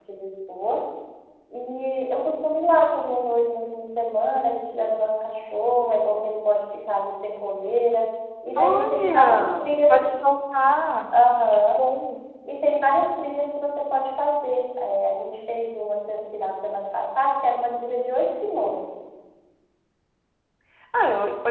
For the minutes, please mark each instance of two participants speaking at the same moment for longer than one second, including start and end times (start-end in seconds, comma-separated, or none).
8.6-10.1